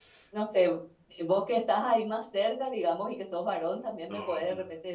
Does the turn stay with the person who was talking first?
Yes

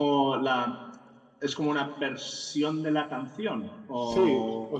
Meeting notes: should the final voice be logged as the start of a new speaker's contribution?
Yes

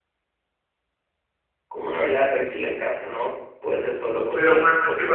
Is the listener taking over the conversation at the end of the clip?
Yes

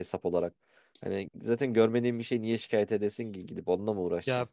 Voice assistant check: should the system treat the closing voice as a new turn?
Yes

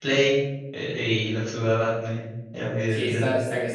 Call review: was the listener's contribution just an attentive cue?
No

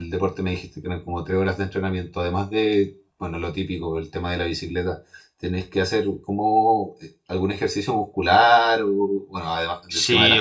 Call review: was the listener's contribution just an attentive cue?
No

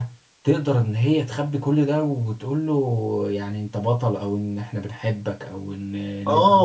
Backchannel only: No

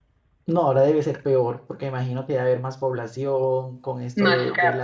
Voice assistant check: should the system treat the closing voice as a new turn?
No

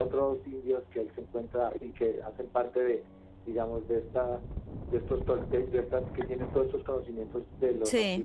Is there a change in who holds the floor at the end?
No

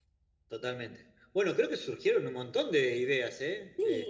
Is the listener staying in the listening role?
No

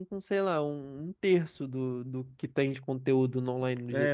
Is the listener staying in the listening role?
No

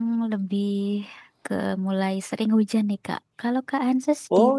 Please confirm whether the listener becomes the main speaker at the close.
Yes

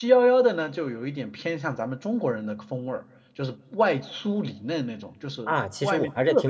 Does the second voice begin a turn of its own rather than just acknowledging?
Yes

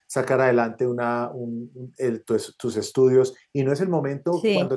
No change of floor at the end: Yes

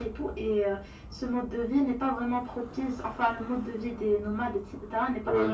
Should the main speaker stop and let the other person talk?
No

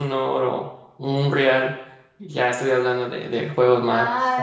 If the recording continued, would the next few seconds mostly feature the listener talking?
Yes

